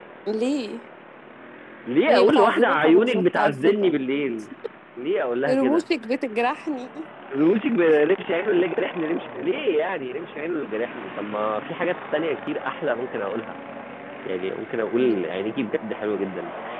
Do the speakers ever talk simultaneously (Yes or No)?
Yes